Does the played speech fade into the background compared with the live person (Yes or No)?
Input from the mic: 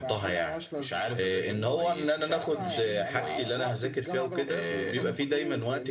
Yes